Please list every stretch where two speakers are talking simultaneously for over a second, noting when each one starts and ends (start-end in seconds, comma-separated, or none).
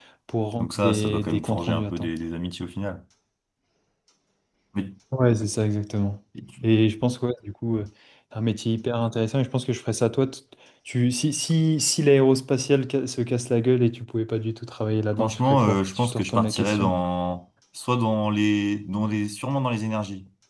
0.6-2.1, 15.2-16.9